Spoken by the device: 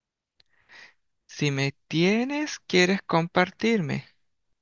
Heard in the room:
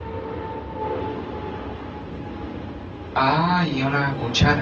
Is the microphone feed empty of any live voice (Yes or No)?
No